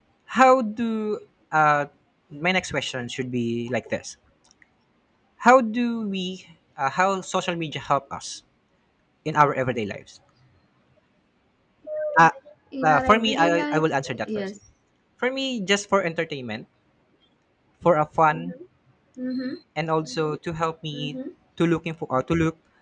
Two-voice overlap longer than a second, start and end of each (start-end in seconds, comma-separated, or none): 12.8-14.5